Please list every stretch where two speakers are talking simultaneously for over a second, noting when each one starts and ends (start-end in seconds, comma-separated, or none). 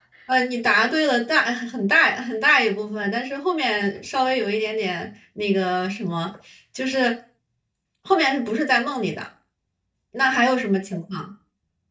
none